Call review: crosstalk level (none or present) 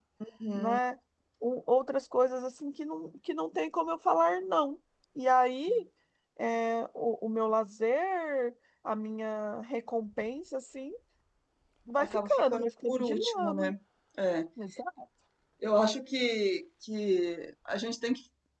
present